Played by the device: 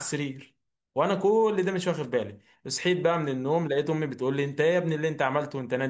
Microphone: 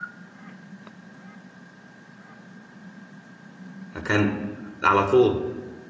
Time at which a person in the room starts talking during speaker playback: 4.0 s

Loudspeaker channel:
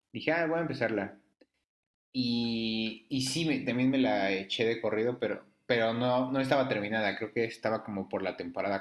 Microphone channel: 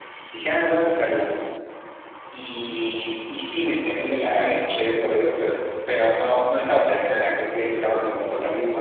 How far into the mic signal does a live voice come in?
7.6 s

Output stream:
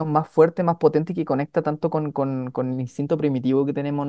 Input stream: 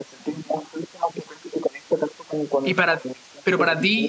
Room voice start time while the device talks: 2.6 s

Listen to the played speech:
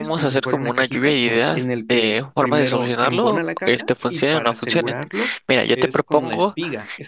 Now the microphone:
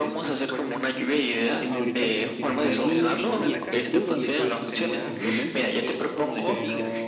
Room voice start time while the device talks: 1.6 s

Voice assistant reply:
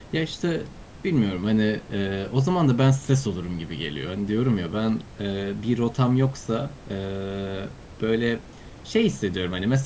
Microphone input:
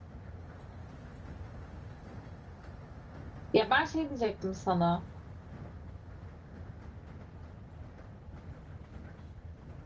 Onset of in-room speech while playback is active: 3.5 s

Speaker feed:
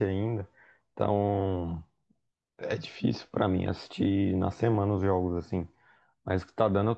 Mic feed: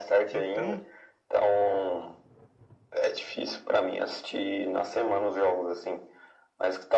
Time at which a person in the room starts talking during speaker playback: 0.3 s

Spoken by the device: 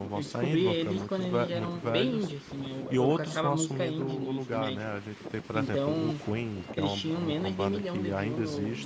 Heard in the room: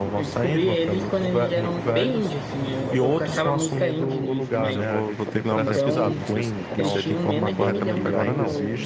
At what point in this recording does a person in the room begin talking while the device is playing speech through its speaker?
4.5 s

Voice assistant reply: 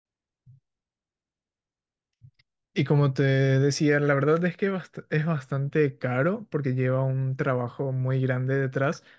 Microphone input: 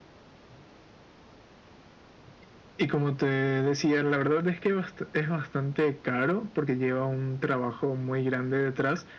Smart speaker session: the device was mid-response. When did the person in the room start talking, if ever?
none

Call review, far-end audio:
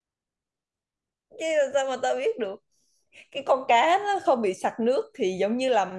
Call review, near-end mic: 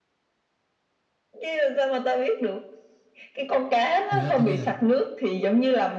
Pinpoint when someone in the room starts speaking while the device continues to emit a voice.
4.1 s

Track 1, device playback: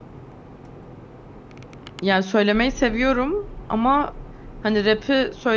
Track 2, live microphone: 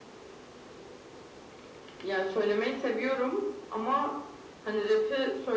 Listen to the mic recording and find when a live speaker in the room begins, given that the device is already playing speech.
none

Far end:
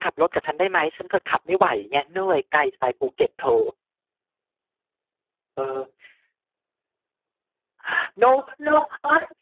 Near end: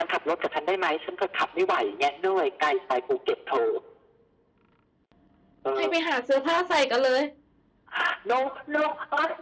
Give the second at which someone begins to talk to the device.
5.8 s

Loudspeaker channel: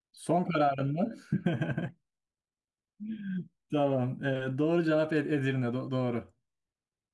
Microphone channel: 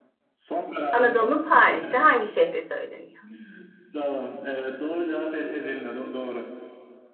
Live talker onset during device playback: 0.9 s

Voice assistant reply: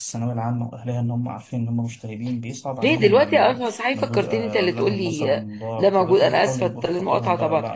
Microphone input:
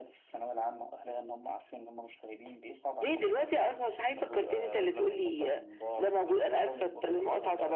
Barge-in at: none

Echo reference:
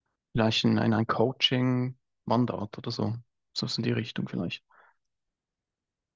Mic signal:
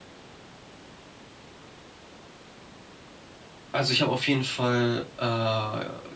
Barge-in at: 3.7 s

